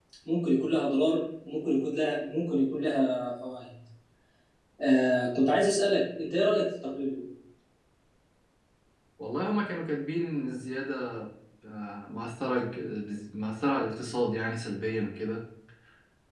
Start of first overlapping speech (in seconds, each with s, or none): none